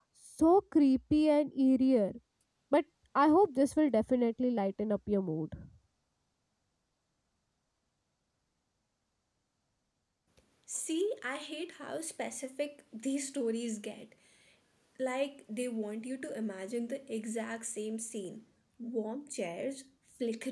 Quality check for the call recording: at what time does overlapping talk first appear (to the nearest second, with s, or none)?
none